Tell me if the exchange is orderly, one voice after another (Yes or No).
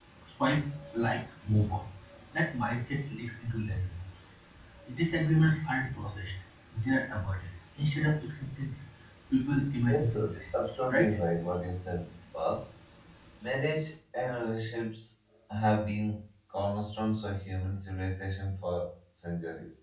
No